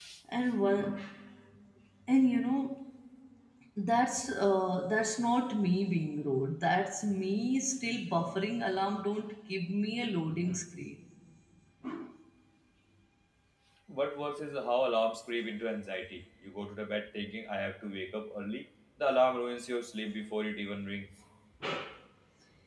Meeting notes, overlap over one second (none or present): none